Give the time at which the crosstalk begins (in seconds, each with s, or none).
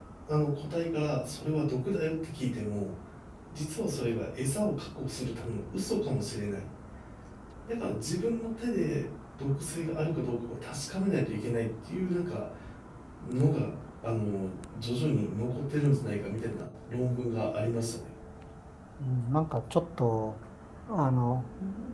none